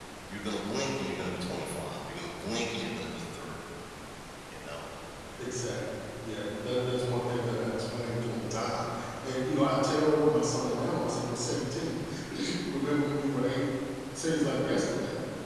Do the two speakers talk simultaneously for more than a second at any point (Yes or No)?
No